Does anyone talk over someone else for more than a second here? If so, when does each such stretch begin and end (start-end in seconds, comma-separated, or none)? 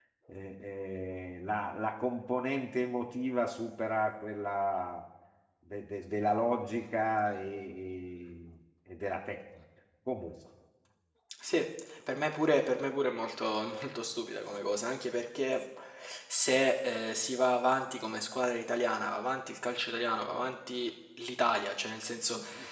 none